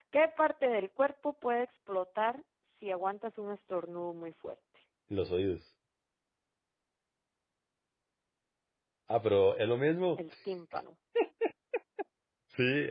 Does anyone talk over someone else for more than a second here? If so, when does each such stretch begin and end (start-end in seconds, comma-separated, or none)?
none